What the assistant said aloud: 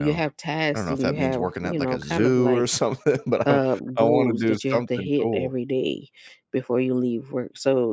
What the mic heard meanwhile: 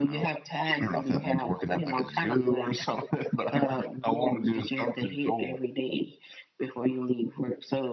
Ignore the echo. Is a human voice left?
No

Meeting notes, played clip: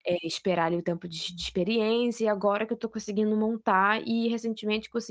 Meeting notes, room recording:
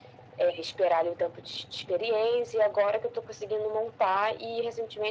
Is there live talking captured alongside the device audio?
No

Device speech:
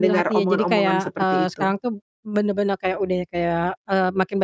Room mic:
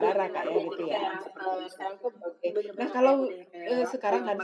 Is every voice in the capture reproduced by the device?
No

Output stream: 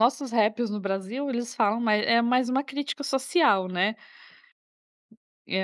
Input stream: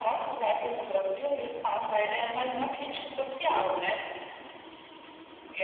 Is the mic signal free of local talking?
Yes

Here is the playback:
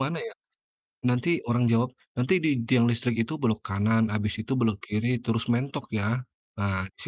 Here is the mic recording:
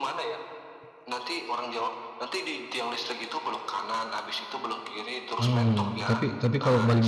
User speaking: Yes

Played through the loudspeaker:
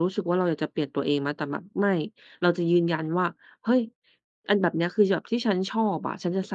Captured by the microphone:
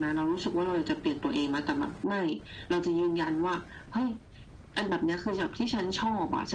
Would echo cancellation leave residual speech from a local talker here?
No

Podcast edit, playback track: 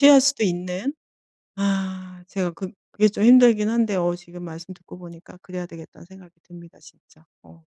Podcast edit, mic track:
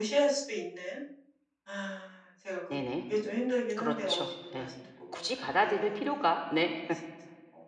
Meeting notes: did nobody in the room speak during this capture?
No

